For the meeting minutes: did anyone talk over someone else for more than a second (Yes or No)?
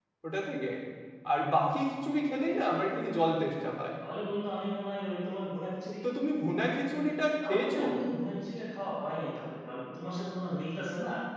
No